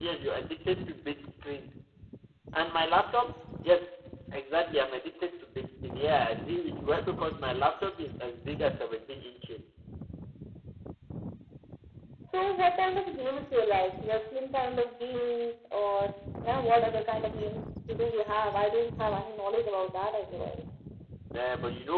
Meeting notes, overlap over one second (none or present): none